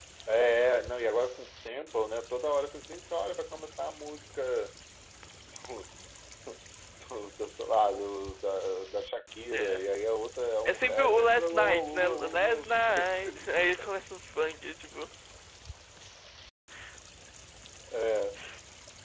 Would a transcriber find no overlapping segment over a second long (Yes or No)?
No